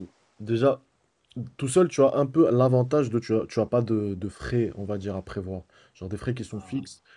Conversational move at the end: listening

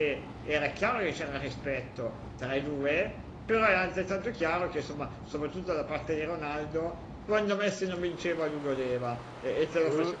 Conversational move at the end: listening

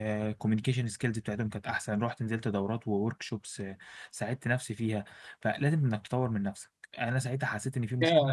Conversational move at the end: taking over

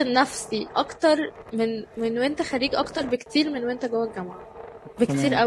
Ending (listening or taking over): taking over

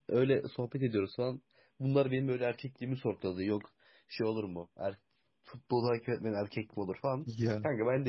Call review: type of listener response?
listening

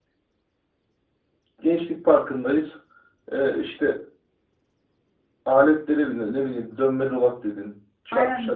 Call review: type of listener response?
taking over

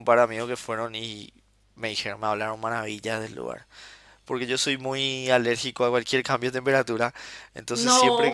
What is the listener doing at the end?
listening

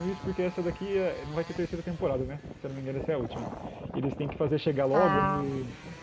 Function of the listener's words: listening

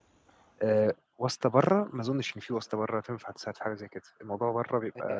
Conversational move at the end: taking over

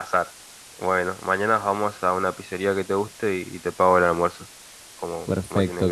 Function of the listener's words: taking over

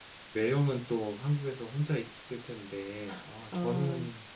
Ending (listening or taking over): listening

